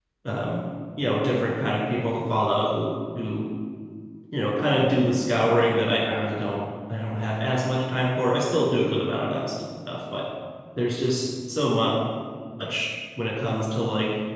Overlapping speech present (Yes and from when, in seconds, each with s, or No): No